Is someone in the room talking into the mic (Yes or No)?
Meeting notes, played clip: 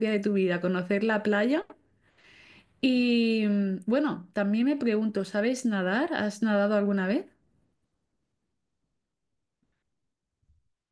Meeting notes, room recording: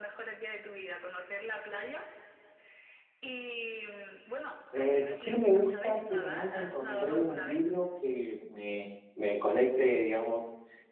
Yes